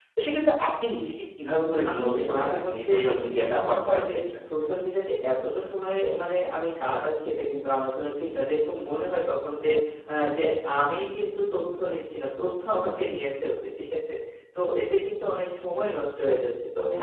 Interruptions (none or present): present